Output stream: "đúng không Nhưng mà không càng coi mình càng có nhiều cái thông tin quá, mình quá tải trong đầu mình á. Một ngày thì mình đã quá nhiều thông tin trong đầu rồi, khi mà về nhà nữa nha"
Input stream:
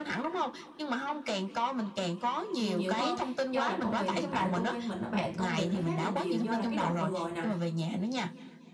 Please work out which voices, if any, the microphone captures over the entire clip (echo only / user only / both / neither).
both